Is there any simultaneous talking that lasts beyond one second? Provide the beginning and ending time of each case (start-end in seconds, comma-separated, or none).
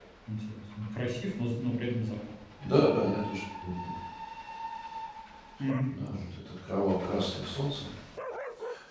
none